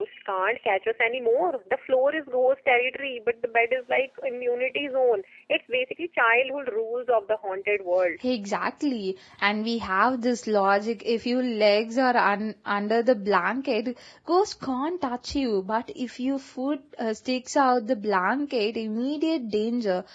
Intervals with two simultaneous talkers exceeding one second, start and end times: none

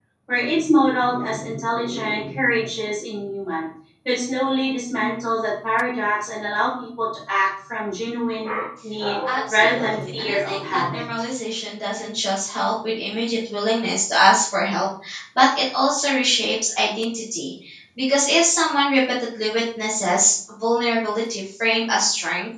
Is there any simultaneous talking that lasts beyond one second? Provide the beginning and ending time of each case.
9.3-11.1

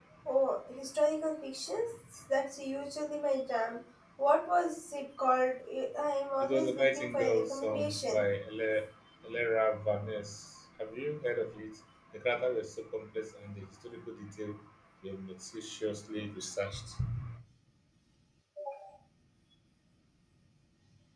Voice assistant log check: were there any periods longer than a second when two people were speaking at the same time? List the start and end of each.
6.4-8.2

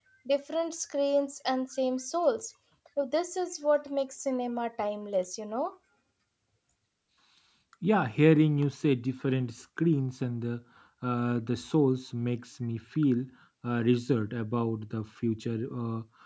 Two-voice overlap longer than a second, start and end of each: none

